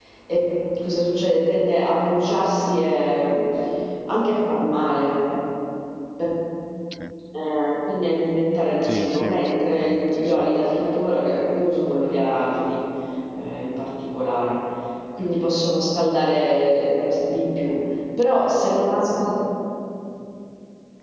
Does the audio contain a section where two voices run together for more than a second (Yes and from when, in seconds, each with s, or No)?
Yes, from 8.8 s